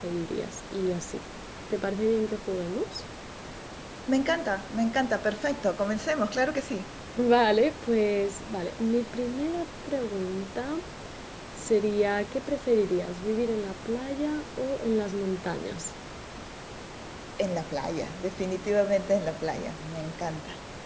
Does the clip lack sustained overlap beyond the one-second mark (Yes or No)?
Yes